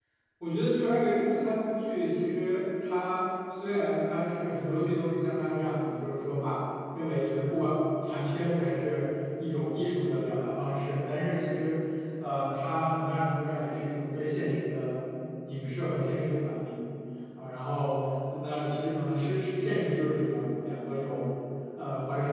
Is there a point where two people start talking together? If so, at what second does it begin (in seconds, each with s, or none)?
none